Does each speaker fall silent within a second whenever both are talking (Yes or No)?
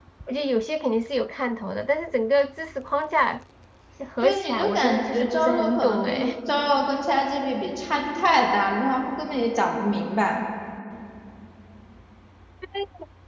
No